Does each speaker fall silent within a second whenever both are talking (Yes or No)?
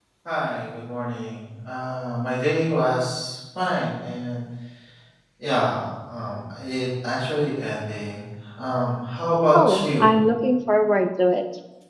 Yes